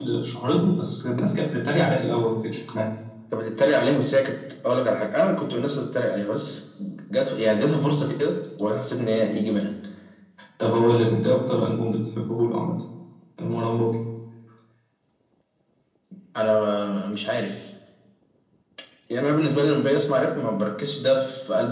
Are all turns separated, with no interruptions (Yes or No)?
Yes